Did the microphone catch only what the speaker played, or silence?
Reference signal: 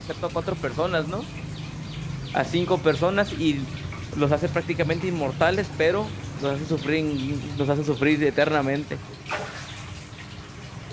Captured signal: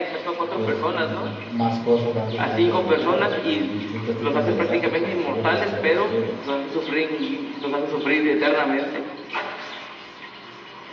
No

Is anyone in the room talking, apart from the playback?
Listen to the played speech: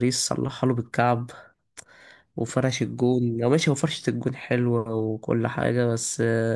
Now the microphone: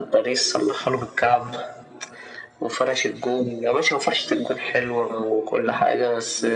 No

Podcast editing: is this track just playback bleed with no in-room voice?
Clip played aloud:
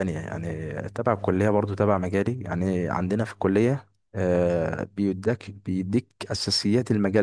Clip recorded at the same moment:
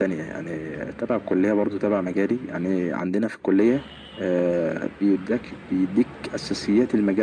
Yes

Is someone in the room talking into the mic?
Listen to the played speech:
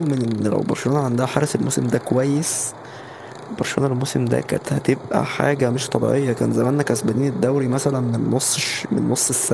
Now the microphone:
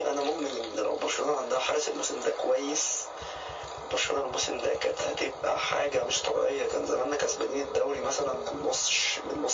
No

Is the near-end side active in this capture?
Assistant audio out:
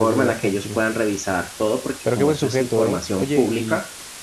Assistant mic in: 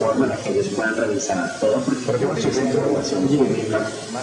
Yes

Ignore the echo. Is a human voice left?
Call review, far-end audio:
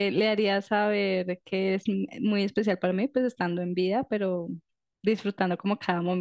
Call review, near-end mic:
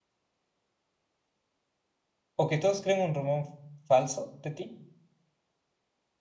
Yes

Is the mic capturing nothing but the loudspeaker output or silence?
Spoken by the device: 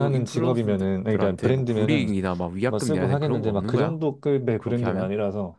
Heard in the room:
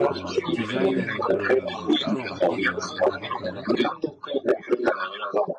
No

